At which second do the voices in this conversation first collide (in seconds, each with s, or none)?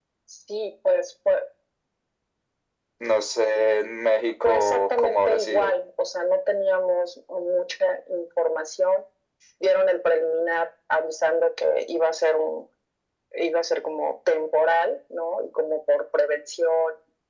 4.4 s